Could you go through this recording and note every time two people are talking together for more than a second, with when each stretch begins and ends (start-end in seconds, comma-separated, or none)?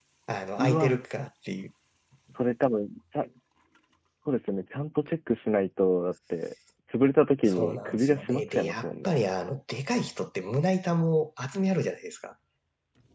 7.5-9.2